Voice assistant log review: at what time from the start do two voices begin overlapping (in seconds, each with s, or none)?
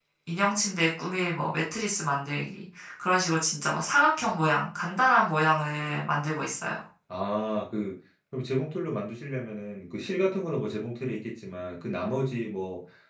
none